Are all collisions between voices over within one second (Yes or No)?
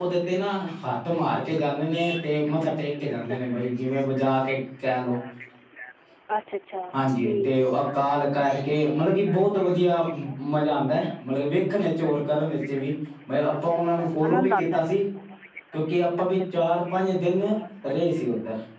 No